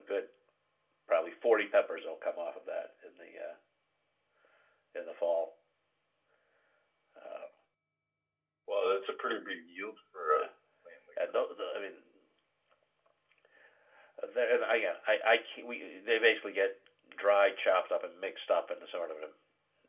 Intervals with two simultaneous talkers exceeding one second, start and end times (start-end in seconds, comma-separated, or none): none